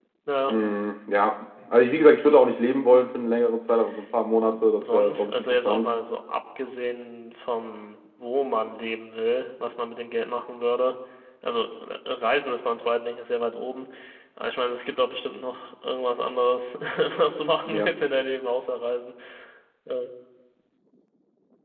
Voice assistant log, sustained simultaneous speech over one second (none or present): present